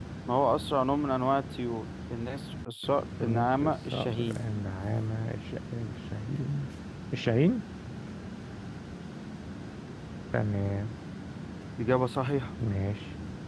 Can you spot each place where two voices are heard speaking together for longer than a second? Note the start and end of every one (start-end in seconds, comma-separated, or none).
3.2-4.4